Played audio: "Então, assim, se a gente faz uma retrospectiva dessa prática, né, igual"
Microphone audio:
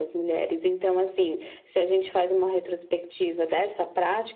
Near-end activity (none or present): none